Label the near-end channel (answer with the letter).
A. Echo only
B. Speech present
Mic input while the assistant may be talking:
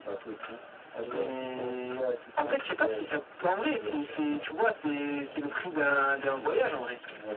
A